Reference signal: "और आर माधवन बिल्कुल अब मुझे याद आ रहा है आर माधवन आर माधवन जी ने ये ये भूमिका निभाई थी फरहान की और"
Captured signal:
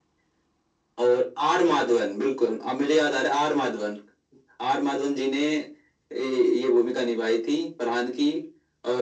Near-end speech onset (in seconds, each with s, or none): none